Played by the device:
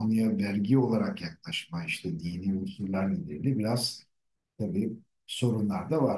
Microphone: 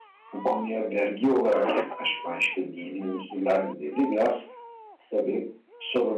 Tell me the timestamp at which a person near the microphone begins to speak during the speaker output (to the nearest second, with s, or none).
none